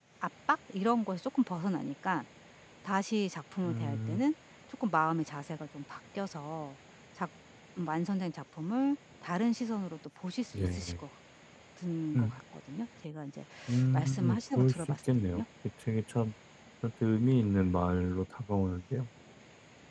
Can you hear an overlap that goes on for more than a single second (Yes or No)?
Yes